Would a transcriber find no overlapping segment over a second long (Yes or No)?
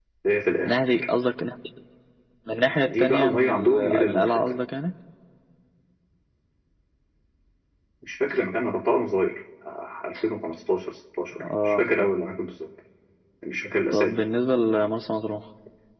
No